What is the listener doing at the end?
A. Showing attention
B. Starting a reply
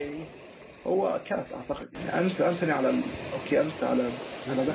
A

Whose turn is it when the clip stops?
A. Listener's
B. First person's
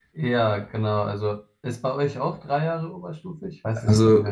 A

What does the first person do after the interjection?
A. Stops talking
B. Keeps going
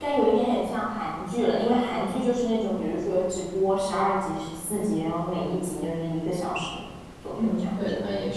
A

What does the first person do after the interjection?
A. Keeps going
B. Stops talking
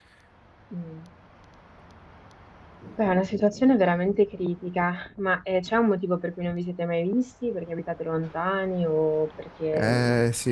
B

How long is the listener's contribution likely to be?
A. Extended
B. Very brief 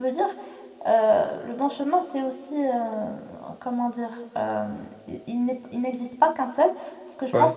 B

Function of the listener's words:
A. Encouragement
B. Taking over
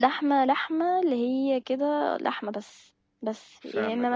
A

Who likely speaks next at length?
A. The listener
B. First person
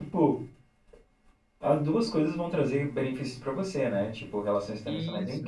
B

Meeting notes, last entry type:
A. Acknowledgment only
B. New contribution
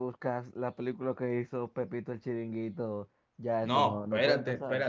B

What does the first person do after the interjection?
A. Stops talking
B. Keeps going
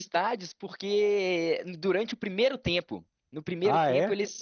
B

